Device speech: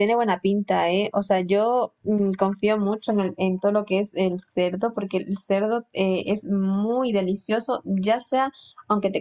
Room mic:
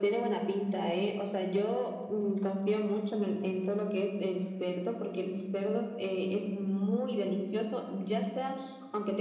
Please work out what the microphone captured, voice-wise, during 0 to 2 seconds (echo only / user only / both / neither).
echo only